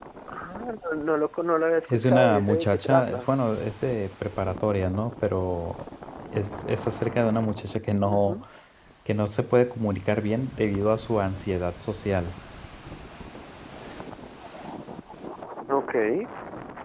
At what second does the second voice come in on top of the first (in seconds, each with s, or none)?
1.9 s